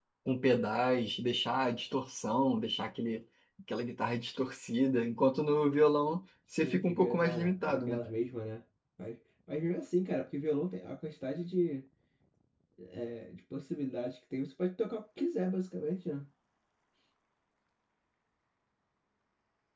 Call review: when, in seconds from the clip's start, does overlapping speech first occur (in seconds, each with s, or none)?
6.5 s